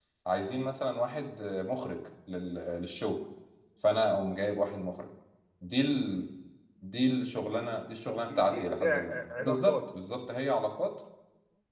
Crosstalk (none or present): present